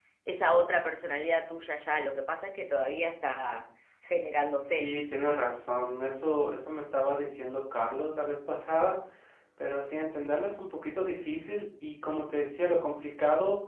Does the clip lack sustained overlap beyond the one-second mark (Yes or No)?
Yes